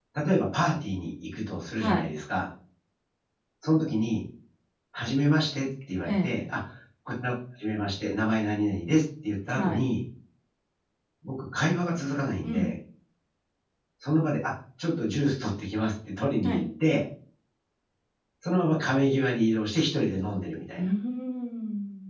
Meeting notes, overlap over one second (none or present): none